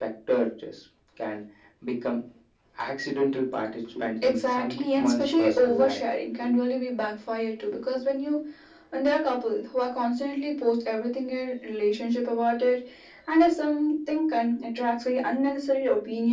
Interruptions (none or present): present